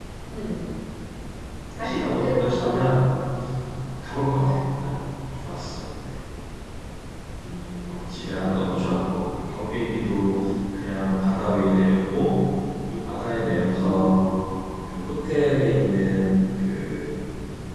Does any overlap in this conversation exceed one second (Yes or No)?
Yes